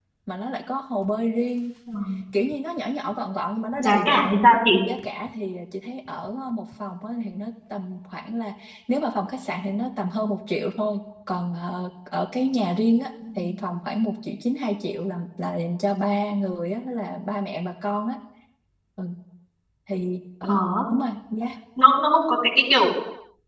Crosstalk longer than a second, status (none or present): none